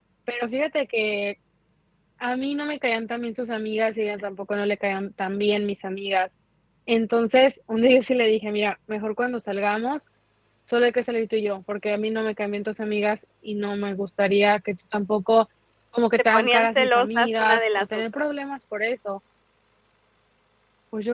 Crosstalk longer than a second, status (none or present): present